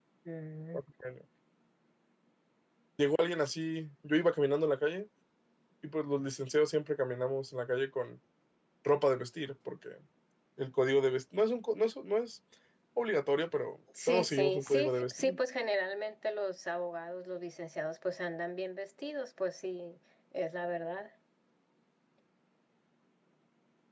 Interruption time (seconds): 13.9 s

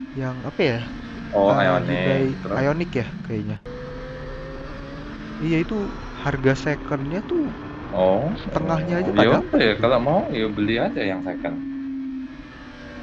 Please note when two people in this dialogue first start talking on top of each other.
1.5 s

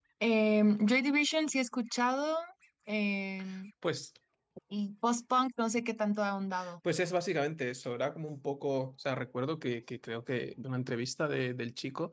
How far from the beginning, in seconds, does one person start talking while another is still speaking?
none

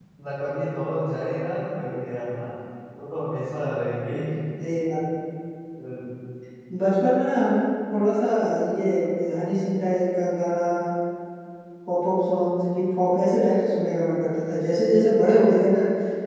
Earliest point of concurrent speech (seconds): none

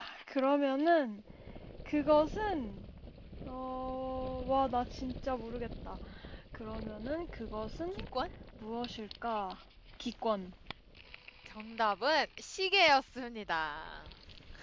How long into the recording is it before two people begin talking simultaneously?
none

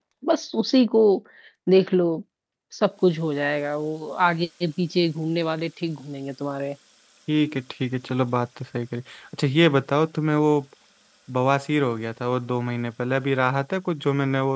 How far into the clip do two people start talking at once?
none

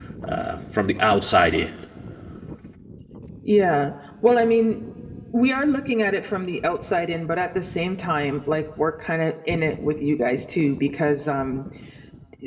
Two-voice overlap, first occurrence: none

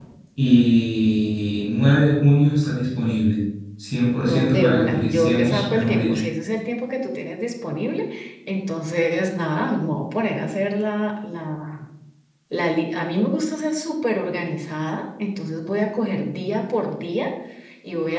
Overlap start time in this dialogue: 4.2 s

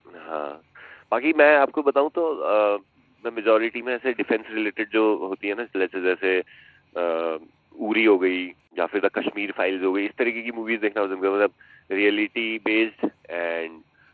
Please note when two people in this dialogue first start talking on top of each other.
none

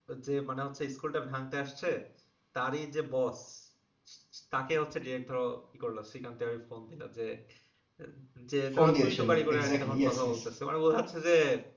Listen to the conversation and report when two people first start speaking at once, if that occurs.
8.7 s

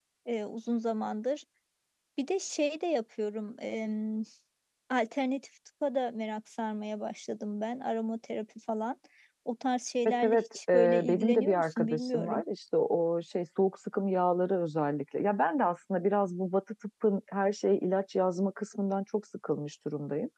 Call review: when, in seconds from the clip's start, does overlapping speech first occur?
10.1 s

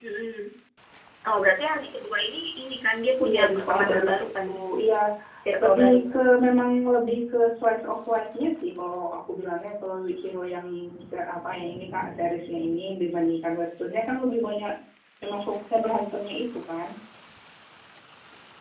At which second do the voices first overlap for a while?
3.2 s

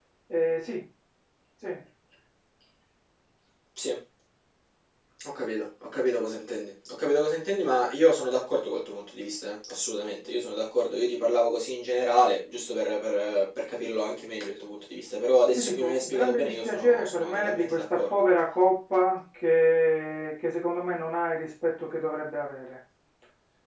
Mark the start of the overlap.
15.5 s

